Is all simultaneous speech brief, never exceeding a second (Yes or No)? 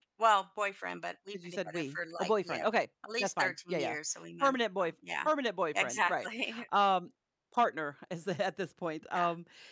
No